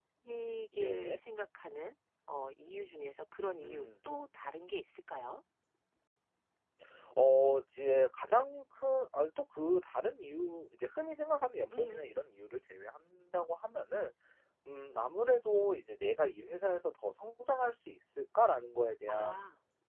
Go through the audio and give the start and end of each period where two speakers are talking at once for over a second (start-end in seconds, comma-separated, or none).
none